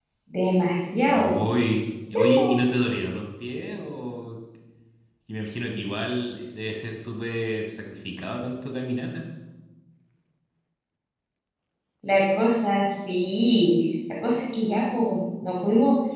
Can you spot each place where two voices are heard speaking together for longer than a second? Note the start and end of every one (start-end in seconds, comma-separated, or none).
none